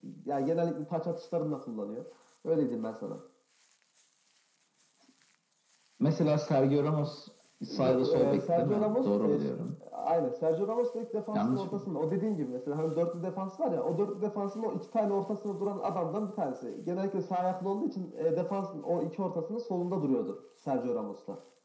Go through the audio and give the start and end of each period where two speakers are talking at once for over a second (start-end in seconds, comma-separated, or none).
7.8-9.4